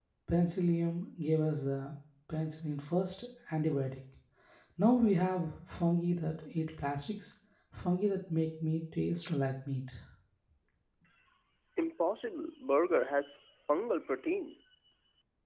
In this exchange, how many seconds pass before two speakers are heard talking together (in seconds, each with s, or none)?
none